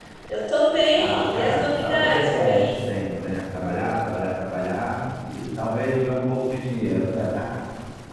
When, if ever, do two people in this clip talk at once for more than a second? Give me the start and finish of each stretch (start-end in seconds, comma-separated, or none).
0.9-2.7